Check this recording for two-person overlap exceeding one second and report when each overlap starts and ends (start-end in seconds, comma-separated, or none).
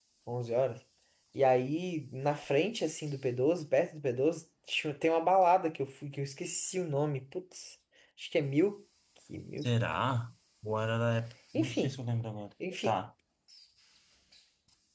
none